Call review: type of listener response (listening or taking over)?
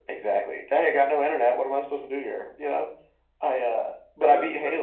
listening